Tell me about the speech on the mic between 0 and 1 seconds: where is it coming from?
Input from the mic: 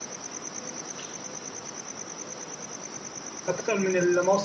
neither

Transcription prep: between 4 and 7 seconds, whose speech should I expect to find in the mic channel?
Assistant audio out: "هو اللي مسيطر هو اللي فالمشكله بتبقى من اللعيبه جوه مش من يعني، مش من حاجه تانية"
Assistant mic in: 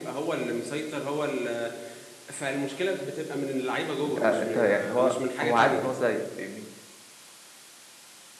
both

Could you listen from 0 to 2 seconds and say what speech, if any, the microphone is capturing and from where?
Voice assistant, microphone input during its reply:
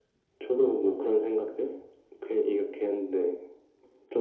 echo only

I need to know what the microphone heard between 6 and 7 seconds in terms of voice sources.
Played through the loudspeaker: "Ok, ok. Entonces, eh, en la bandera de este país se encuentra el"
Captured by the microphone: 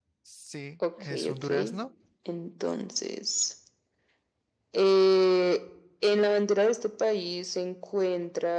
echo only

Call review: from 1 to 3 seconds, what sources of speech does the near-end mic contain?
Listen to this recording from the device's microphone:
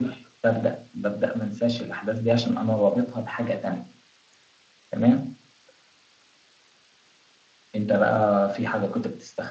user only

